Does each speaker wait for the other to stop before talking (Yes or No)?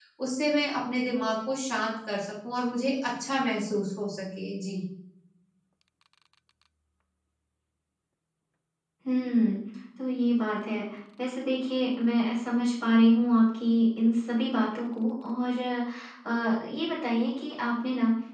Yes